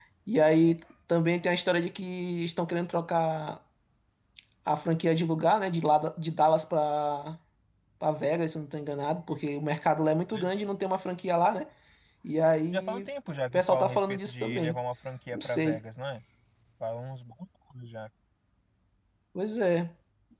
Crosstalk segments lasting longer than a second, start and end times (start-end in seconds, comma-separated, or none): 13.5-14.8